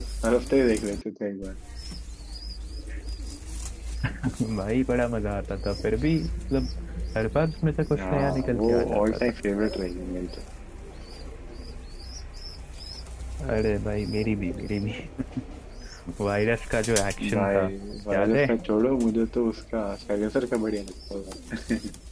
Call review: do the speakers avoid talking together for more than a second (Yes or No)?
No